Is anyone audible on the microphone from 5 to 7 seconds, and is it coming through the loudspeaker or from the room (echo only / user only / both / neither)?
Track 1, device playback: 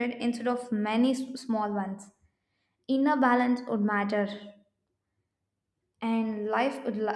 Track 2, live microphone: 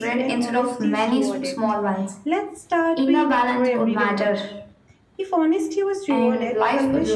both